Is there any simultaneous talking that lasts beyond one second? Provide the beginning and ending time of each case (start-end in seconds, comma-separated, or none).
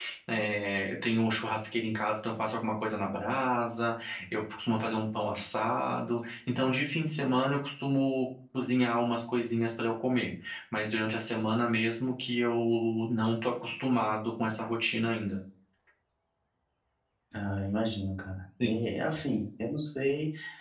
none